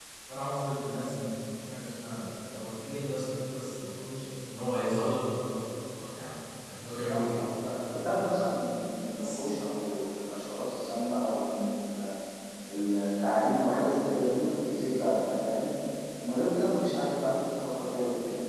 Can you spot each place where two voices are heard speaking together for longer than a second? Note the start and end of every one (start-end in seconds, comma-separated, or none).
none